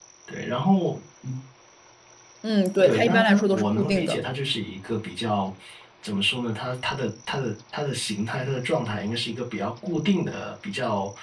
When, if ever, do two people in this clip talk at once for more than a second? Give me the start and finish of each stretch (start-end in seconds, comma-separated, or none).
2.8-4.2